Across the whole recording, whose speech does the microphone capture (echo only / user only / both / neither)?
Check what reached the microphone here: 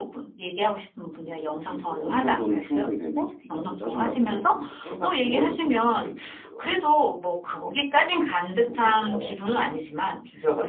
echo only